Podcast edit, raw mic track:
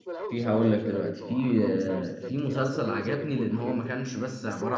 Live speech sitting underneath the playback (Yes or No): No